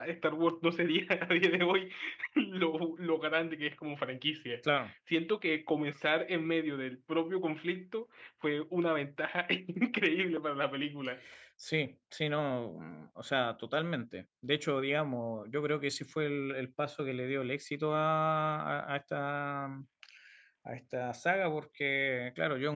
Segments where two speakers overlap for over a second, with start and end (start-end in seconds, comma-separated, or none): none